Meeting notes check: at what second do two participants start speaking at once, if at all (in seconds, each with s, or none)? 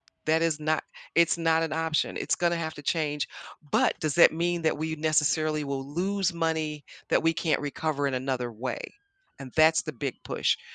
none